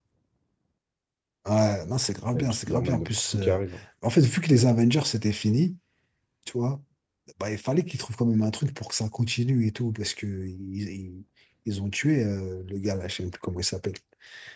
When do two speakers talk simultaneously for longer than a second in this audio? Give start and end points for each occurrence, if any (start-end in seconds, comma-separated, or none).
2.3-3.6